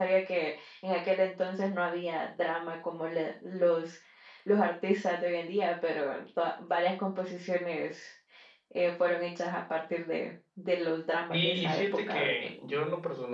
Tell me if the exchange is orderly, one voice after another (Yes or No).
No